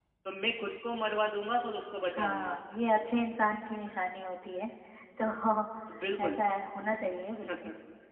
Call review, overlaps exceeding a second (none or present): none